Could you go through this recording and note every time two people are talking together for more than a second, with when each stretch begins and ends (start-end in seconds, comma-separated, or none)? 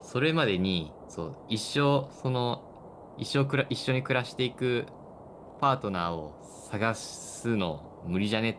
none